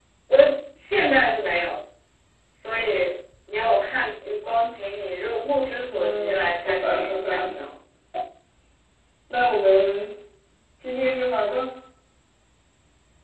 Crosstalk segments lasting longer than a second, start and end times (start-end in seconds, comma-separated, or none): 5.9-7.6